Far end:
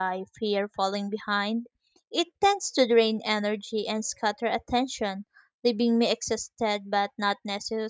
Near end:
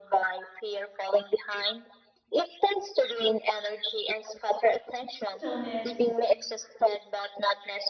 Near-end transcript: stillness,

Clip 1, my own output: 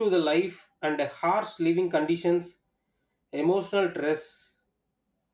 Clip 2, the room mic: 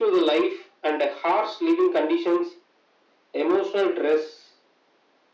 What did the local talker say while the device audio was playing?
none

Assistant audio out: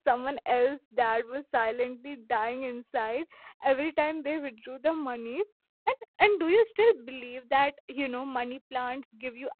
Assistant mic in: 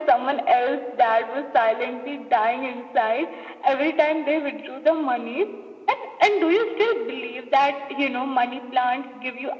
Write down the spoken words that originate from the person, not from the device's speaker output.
none

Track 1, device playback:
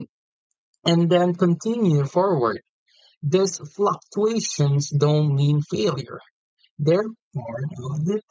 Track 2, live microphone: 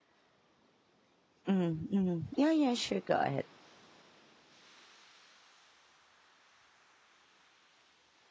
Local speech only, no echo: Mhm. Mhm. Yeah, yeah, sure. Go ahead.

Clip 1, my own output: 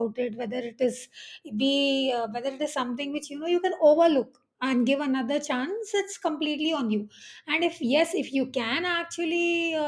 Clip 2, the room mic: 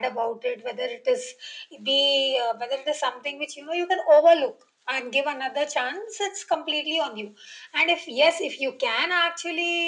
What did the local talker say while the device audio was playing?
none

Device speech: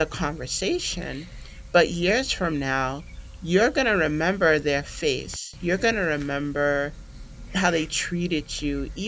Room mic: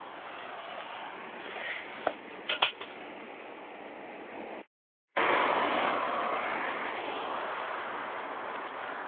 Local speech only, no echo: none

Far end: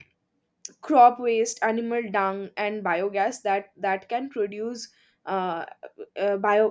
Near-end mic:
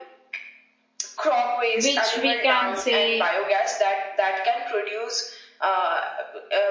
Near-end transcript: which we can say

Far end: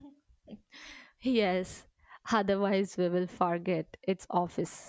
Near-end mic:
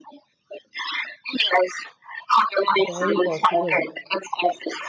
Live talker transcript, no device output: Very possible.

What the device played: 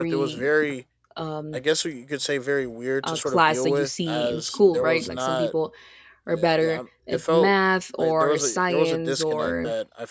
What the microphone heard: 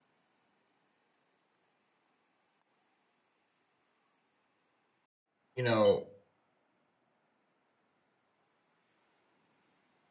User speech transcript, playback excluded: you know,

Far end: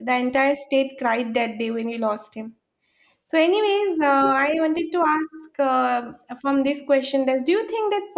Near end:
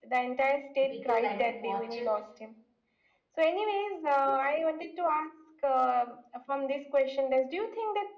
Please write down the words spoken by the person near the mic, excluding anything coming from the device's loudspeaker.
people like to watch it

